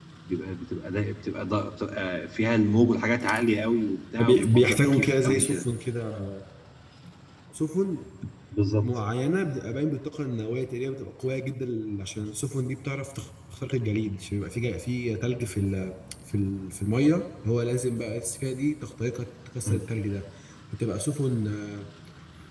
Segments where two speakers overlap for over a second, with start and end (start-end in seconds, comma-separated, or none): 4.2-5.6